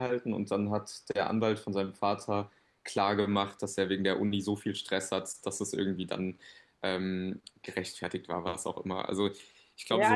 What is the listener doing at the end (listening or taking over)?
taking over